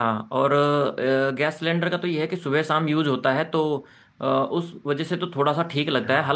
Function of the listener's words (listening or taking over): listening